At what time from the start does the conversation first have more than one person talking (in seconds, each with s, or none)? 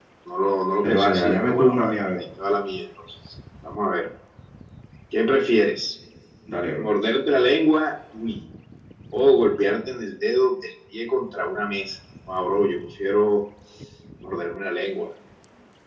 0.8 s